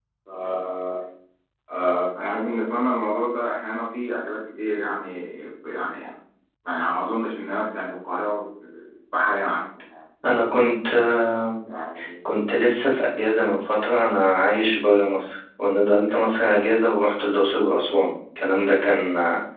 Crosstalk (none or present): none